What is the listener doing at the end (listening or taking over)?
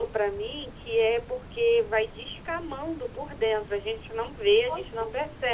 listening